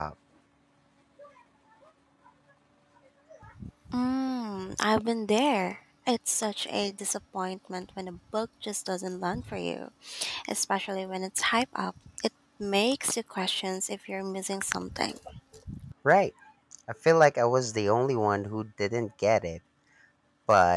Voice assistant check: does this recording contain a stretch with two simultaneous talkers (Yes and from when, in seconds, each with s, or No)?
No